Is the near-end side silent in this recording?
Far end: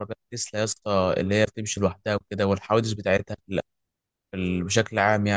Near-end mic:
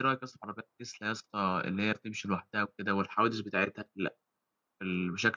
Yes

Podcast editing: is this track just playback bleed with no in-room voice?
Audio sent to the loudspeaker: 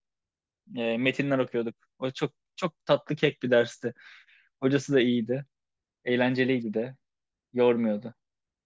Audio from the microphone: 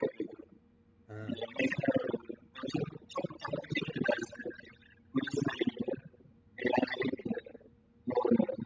No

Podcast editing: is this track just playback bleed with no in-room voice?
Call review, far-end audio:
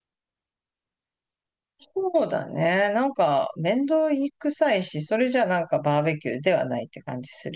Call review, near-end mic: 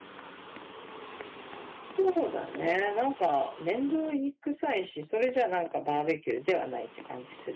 Yes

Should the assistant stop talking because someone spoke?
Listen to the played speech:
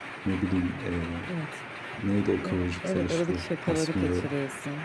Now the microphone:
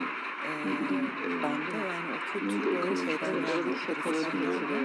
Yes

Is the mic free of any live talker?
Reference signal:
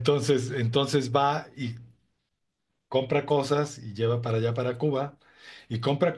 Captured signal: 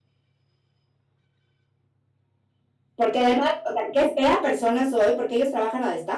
No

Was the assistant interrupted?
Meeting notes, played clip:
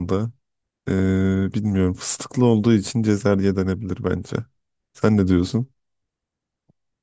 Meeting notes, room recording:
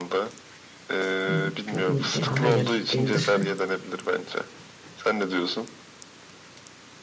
Yes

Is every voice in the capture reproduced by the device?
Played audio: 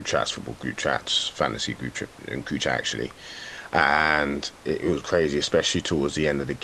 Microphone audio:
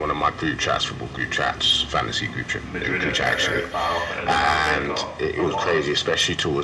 No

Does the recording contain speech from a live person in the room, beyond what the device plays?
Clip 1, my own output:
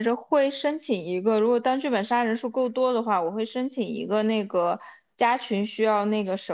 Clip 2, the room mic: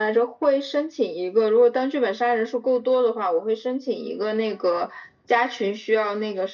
No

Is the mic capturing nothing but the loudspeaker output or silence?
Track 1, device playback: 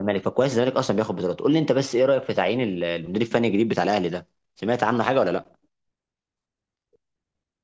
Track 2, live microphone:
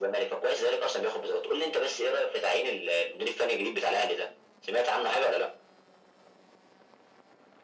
Yes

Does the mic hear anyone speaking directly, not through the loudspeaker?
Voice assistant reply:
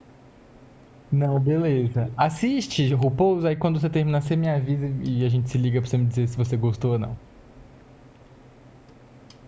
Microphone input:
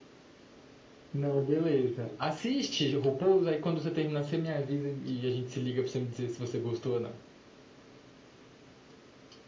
No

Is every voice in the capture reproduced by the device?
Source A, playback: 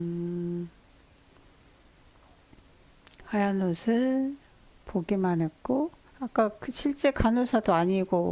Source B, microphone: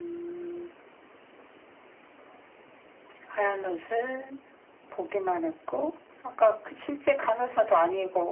Yes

